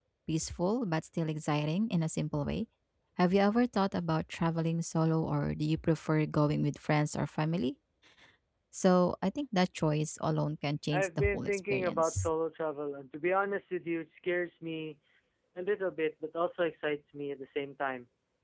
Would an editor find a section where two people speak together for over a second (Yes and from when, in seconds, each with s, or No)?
Yes, from 10.9 s